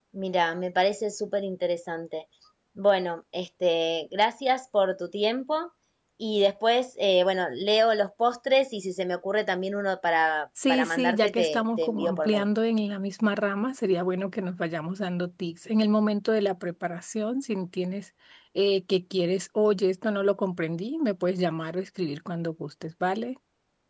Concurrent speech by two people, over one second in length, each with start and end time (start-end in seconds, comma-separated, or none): 10.7-12.4